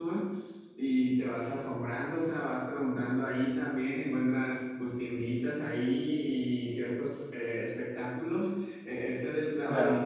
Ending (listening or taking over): listening